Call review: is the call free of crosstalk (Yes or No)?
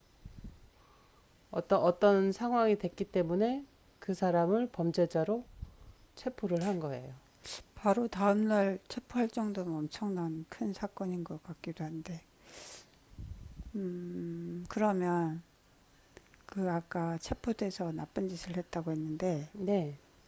Yes